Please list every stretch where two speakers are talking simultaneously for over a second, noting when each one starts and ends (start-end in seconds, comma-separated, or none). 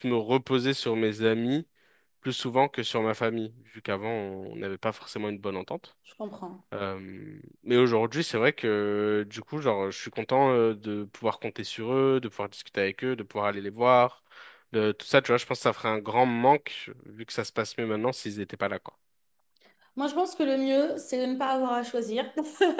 none